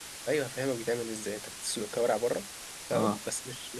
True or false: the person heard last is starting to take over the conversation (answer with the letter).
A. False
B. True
A